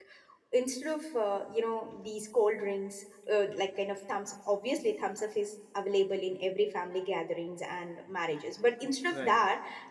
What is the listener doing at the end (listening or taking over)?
listening